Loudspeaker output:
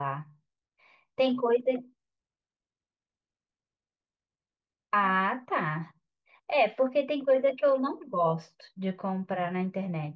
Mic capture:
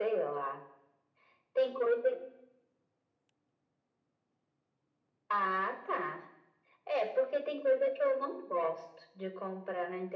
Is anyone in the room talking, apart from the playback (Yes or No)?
No